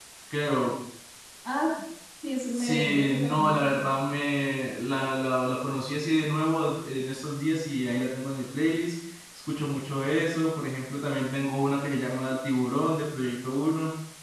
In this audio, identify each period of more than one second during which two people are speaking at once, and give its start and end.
2.5-3.9

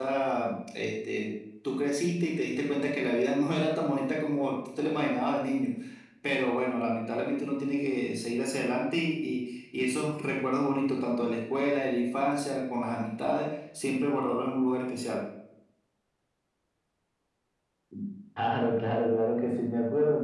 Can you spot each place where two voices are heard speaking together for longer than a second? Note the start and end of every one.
none

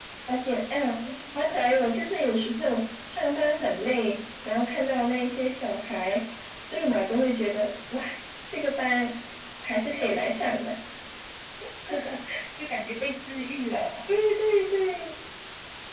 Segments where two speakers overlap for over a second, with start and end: none

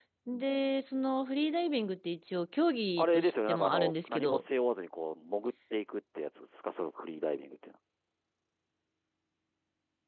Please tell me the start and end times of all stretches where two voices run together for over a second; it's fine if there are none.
3.0-4.4

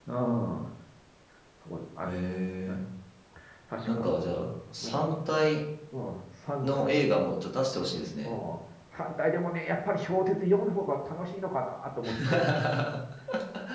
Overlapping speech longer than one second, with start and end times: none

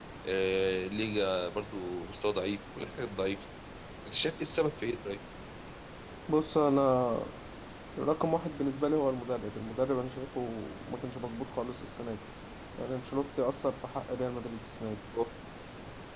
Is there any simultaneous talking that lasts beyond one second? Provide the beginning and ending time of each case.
none

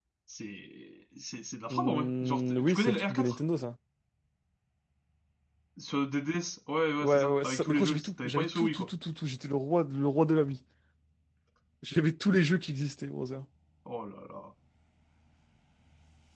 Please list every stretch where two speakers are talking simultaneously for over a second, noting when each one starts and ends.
1.7-3.4, 7.0-8.9

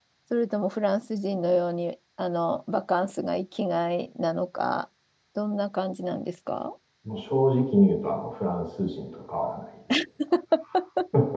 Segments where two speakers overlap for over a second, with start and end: none

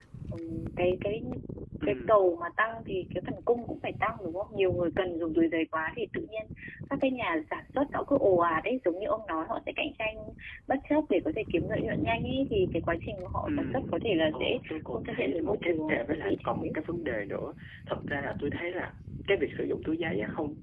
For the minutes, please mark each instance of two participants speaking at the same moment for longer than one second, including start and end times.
14.3-16.5

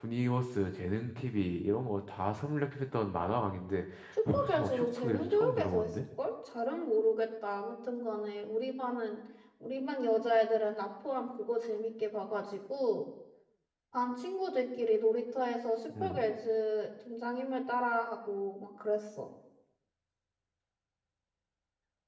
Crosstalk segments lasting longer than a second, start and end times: 4.3-5.9

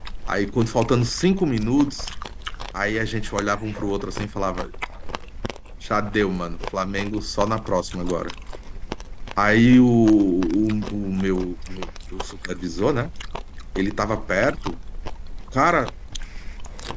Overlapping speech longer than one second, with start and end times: none

